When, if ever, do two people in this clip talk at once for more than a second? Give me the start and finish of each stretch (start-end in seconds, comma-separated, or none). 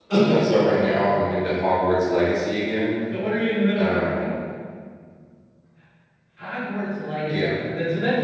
none